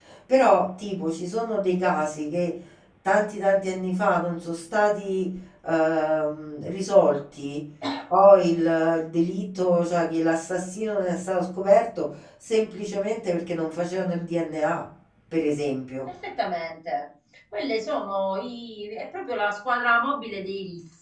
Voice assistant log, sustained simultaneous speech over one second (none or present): none